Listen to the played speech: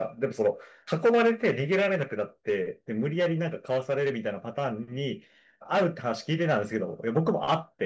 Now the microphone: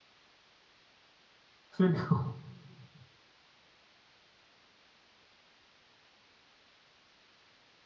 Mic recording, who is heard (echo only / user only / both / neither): user only